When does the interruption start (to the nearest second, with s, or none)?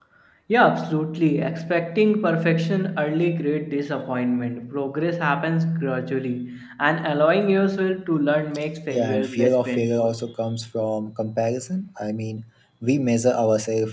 9 s